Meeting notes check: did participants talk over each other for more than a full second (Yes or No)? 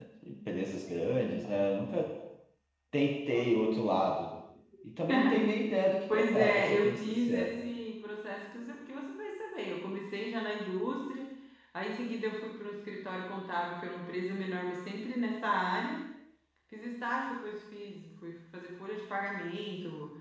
Yes